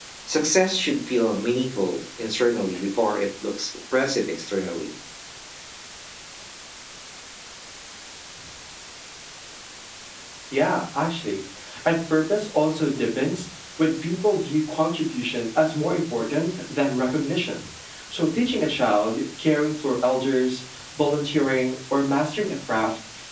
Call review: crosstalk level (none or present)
none